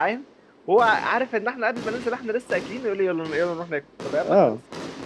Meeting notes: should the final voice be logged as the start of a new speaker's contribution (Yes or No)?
No